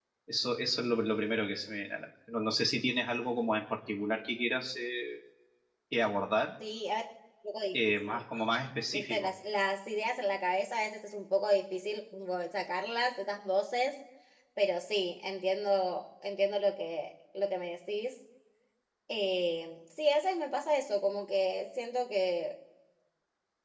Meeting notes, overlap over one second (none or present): none